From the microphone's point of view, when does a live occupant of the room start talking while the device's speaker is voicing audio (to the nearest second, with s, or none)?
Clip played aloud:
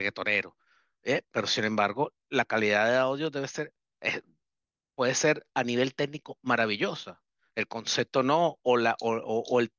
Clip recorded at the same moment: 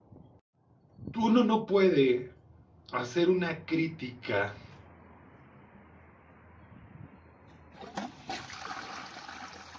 1 s